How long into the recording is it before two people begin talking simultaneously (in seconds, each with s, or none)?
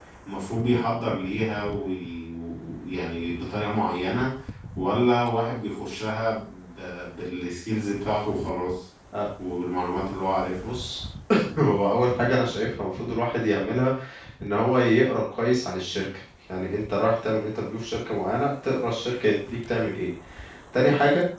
none